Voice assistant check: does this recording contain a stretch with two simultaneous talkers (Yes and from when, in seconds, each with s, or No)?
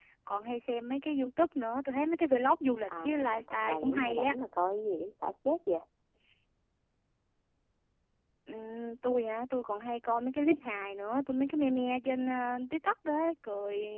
Yes, from 2.9 s